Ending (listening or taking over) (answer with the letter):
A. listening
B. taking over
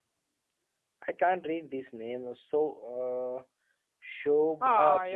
B